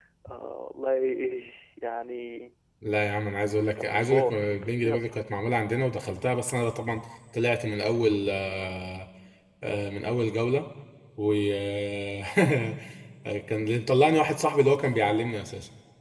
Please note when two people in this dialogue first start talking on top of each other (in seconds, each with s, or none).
3.8 s